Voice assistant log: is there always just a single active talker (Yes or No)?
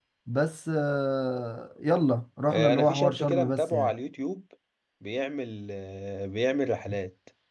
No